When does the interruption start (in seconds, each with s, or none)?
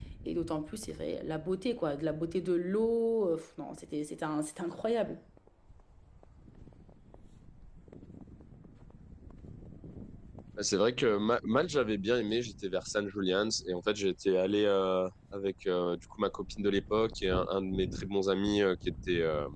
none